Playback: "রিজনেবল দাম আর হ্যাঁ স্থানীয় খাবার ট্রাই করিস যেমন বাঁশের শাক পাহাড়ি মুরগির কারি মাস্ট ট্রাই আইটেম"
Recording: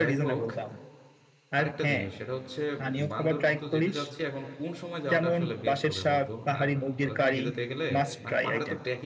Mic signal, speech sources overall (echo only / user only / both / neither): both